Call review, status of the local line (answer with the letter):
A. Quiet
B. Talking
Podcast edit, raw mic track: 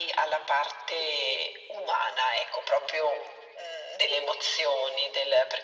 A